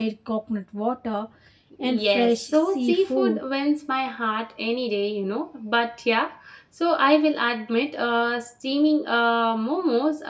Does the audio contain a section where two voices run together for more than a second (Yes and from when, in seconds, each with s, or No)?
Yes, from 1.8 s